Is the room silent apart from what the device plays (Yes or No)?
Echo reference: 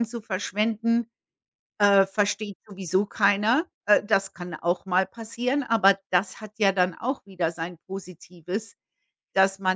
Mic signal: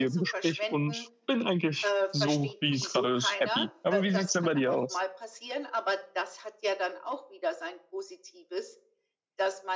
No